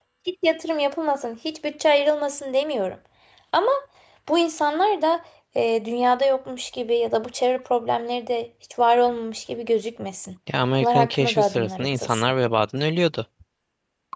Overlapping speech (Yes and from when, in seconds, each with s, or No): Yes, from 10.8 s